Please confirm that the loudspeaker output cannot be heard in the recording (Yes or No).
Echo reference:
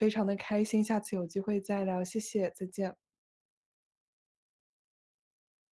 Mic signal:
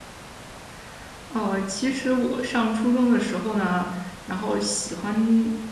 Yes